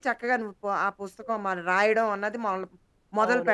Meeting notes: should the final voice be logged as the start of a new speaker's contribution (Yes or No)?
Yes